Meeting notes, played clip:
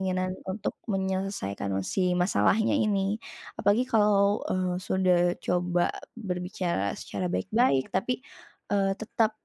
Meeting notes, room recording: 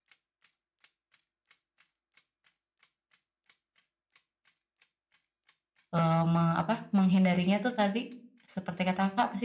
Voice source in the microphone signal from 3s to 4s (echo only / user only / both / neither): neither